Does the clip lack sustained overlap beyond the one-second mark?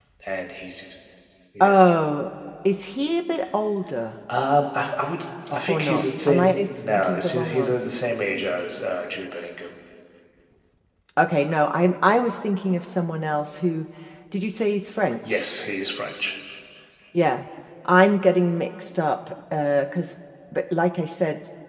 No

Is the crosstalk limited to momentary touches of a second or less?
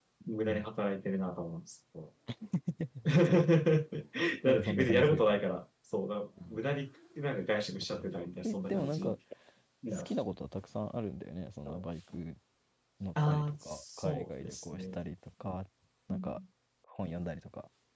No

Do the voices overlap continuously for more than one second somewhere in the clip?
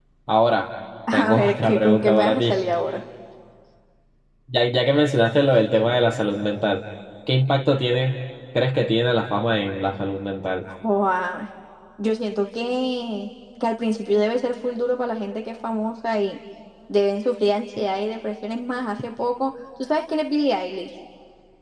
Yes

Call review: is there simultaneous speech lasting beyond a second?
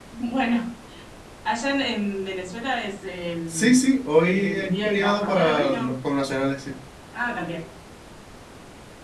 Yes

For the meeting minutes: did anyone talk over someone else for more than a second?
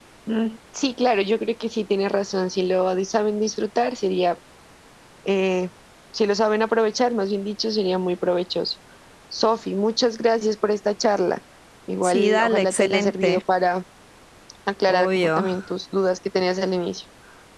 Yes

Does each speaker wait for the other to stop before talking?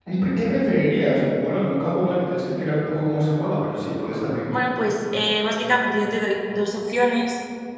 Yes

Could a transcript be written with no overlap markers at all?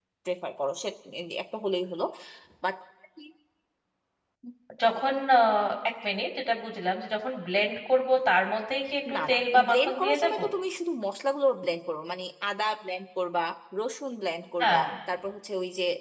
No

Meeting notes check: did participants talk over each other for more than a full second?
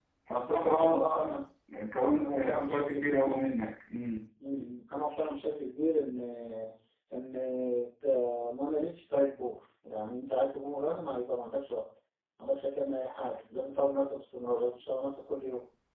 Yes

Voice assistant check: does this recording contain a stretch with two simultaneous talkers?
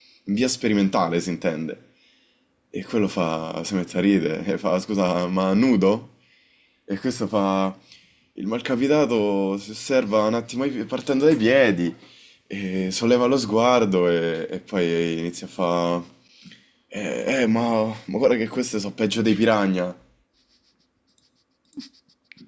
No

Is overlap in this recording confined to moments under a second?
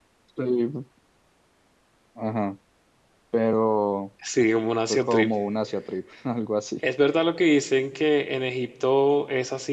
Yes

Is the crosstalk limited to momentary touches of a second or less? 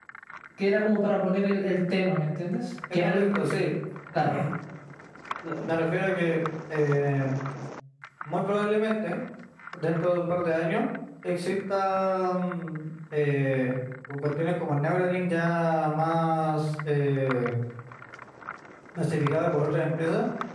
Yes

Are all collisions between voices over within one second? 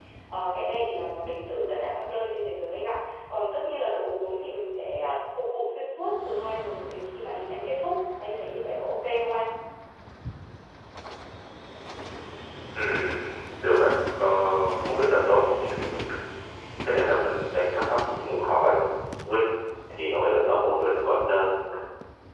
Yes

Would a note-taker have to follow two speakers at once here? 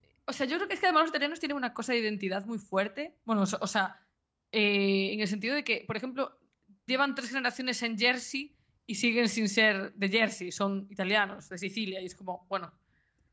No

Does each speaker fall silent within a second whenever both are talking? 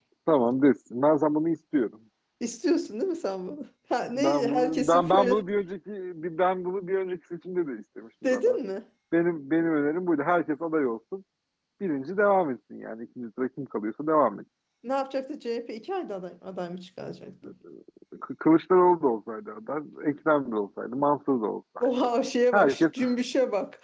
No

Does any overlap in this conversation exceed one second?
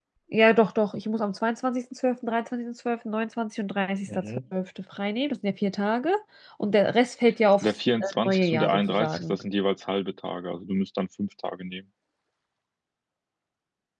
Yes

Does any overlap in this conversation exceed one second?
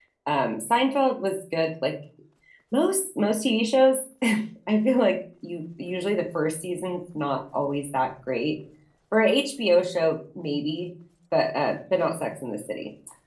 No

